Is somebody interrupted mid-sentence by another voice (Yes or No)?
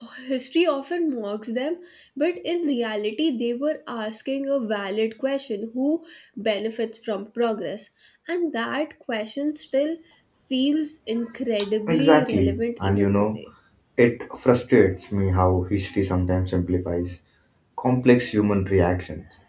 Yes